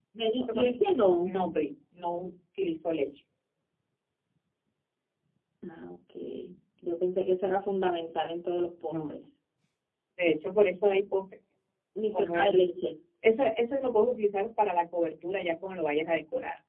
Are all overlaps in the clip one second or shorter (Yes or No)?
Yes